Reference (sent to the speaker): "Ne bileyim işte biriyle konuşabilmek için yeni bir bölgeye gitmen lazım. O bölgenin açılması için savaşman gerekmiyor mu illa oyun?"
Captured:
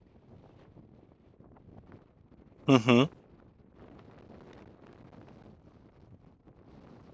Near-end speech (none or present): present